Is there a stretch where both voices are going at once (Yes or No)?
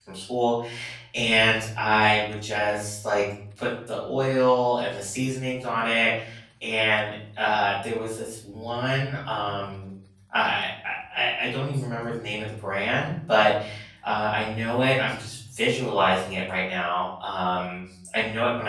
No